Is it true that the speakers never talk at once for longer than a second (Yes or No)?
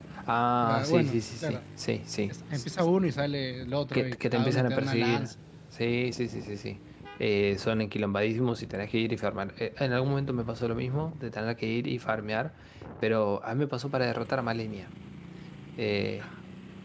No